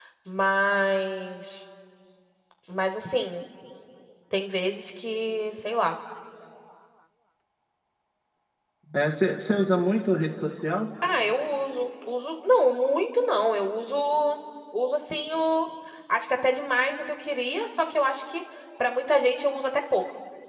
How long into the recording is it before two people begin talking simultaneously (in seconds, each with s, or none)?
none